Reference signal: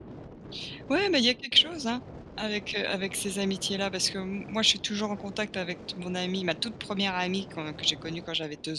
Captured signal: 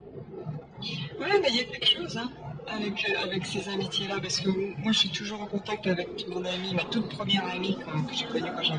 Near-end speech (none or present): present